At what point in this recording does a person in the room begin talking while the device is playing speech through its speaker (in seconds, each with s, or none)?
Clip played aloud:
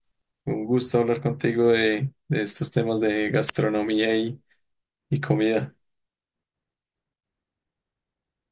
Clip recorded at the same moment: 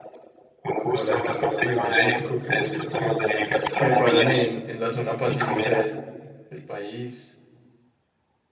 0.8 s